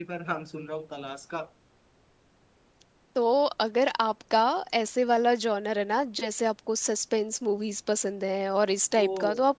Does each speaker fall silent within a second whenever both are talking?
Yes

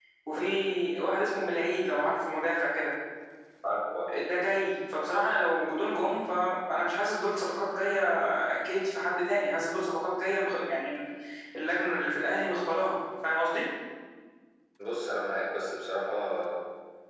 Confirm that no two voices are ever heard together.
Yes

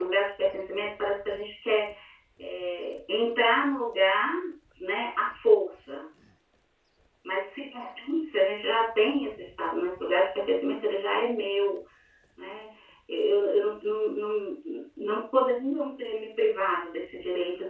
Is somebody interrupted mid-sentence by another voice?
No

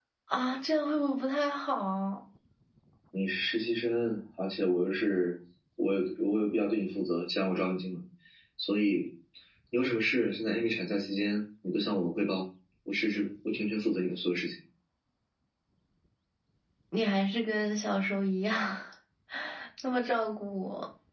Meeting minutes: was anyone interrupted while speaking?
No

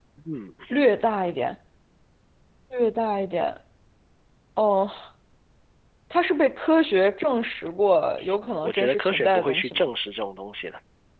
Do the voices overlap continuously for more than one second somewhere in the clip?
Yes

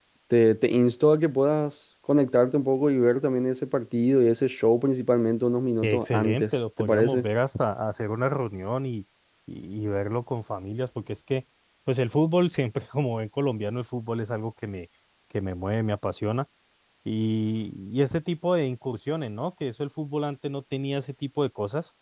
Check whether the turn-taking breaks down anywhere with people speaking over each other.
Yes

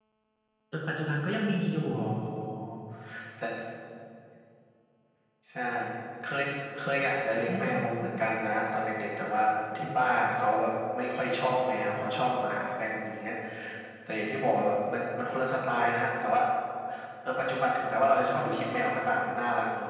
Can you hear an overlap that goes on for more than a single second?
No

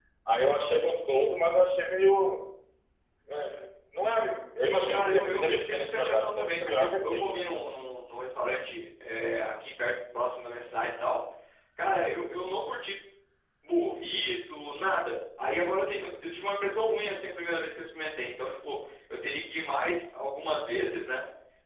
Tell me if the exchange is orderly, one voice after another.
No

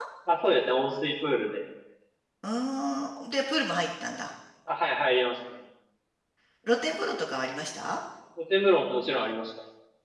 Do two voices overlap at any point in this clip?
No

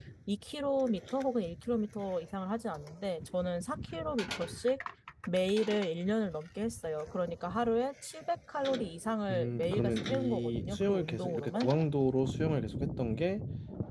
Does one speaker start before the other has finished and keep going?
Yes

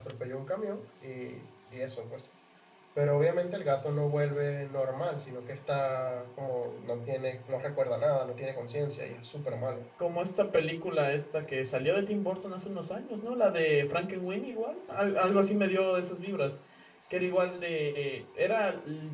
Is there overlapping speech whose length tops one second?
No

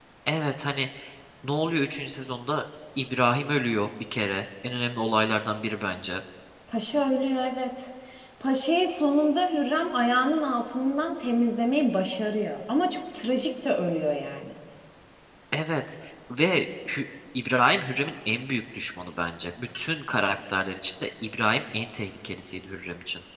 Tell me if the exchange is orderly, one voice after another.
Yes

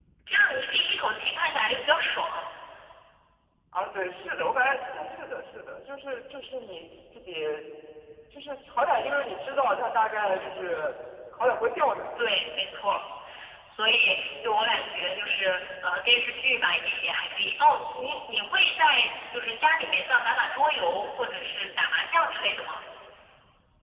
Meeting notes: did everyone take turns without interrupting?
Yes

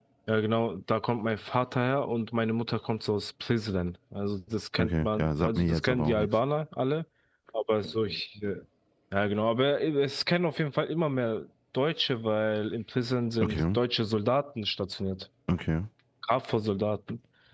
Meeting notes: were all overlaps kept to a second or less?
No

